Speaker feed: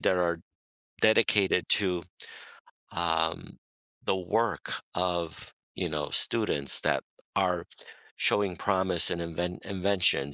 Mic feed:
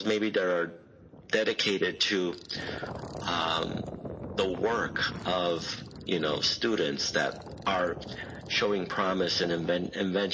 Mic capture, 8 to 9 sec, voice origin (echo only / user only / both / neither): echo only